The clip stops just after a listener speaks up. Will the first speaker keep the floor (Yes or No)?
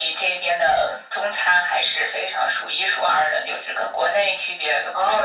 No